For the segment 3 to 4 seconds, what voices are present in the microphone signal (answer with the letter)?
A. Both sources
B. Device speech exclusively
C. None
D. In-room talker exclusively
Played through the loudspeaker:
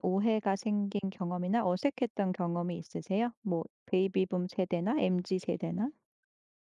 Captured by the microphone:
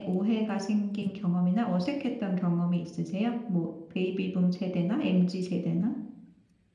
B